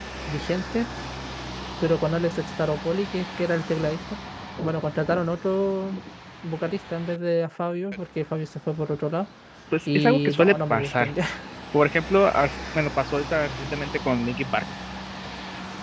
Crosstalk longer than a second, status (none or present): present